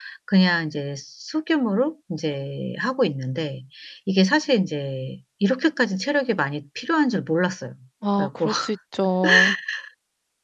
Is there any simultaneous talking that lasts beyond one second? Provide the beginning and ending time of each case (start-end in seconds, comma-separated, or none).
none